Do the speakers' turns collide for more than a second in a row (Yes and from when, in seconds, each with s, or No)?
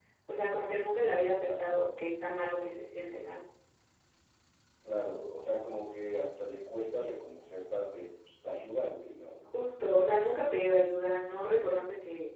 No